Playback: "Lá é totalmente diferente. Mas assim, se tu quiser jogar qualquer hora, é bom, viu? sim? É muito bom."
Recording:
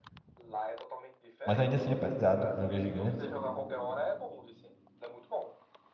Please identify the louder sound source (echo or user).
user